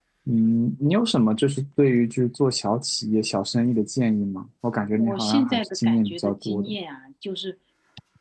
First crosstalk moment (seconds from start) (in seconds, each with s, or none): 4.9 s